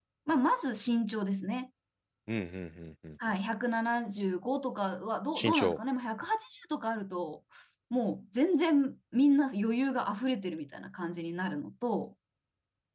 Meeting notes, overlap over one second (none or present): none